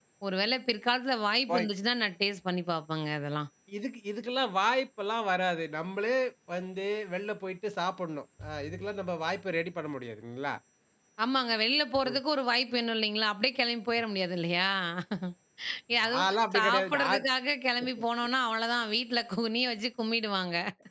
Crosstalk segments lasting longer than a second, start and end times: 16.0-17.2

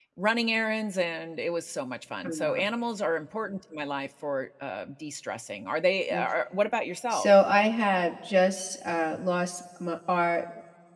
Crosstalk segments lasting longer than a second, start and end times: none

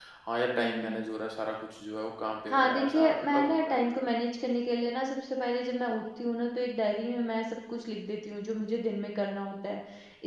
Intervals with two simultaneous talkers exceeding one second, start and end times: 2.5-4.0

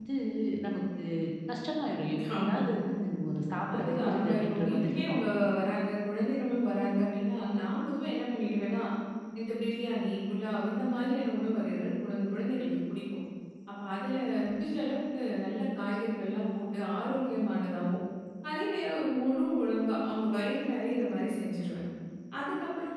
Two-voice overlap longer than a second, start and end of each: 3.8-5.0

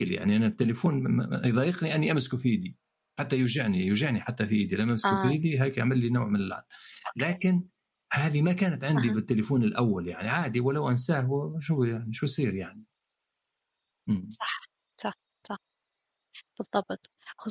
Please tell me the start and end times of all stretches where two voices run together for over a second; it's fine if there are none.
none

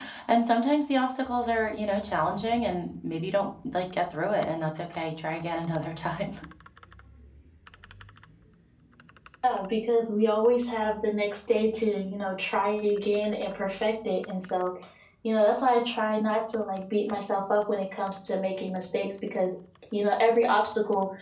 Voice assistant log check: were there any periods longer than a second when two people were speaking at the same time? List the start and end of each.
none

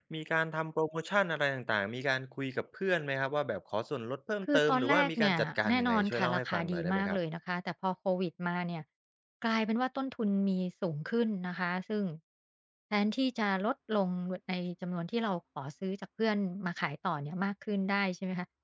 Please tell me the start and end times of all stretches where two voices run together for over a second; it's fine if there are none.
4.4-7.2

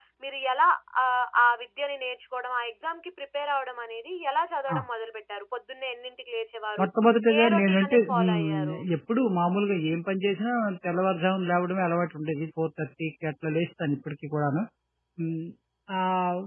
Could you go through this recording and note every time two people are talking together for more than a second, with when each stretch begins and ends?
7.4-8.8

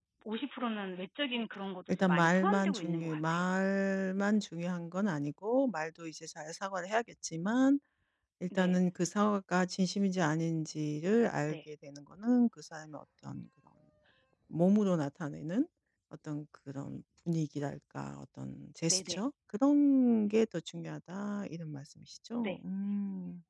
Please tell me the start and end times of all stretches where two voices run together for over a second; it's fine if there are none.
1.9-3.5

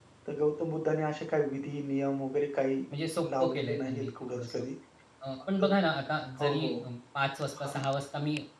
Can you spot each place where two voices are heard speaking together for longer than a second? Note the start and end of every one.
3.4-4.6

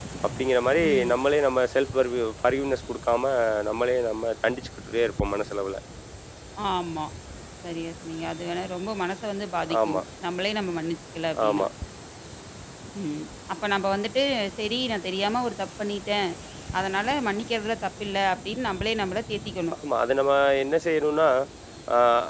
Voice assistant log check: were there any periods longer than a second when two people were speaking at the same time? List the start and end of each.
none

